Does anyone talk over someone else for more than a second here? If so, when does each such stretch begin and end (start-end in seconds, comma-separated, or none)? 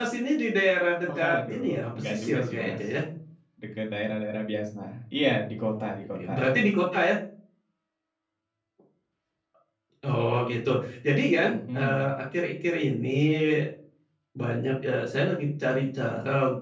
1.2-2.8